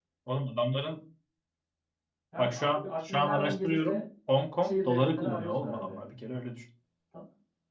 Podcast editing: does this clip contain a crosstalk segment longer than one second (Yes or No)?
Yes